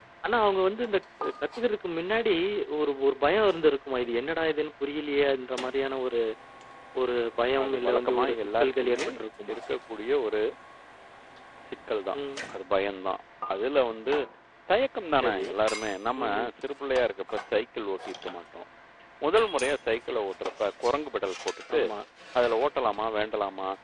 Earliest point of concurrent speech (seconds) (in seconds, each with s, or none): 7.6 s